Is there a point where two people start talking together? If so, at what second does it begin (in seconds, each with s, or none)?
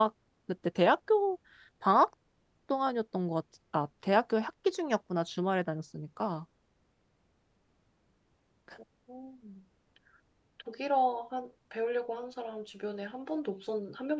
none